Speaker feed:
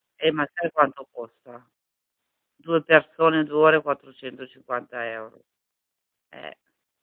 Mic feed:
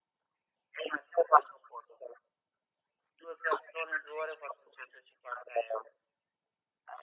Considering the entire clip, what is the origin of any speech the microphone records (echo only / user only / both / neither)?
echo only